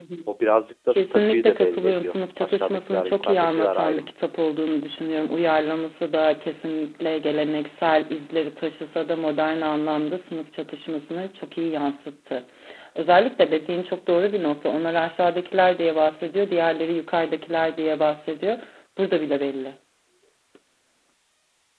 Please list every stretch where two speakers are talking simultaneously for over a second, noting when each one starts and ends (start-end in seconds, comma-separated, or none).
0.9-4.1